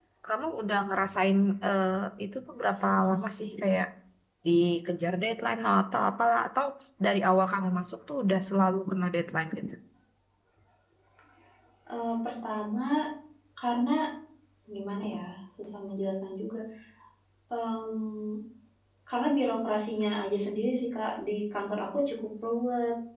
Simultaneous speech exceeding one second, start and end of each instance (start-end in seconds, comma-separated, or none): none